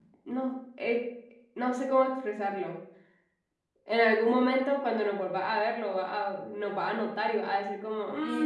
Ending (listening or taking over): taking over